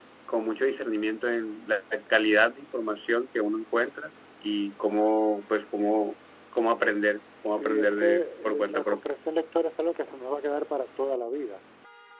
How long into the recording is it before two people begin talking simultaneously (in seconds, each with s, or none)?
7.5 s